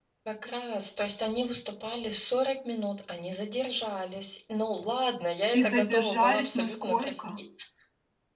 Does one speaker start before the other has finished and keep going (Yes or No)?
Yes